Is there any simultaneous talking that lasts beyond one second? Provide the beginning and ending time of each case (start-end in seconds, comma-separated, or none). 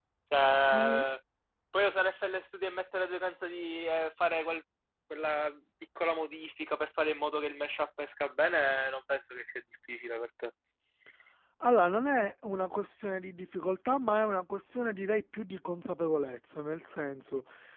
none